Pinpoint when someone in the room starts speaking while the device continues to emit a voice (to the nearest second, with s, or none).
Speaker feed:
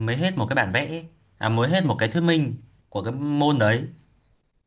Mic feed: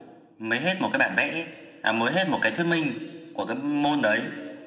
none